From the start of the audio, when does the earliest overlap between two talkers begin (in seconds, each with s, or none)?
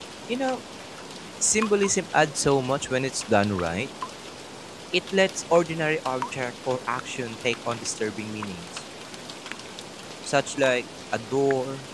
none